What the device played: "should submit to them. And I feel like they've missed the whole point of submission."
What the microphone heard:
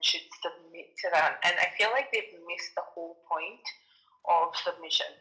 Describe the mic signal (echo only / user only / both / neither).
echo only